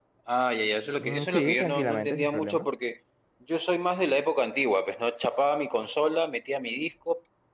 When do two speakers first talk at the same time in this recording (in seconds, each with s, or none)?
1.0 s